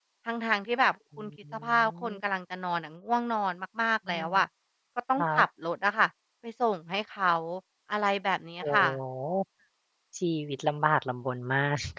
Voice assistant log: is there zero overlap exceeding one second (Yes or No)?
Yes